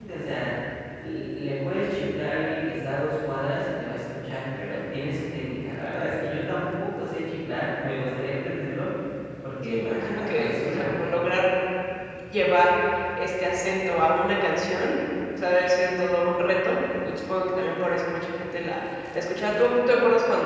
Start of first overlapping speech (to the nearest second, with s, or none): 10 s